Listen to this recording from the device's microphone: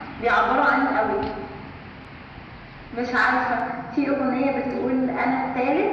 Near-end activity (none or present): none